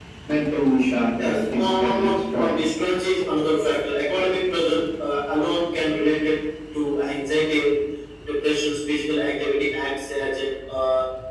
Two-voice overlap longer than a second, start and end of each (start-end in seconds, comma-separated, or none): 1.2-2.6